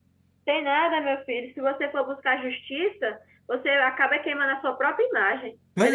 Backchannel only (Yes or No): Yes